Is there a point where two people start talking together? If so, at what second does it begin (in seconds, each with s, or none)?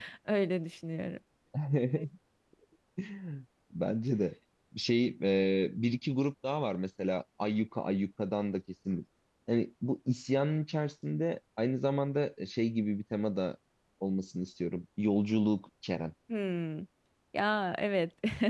none